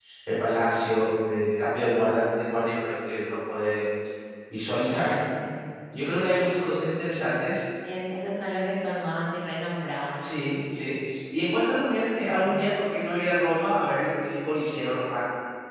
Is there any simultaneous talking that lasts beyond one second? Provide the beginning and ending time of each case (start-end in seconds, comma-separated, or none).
none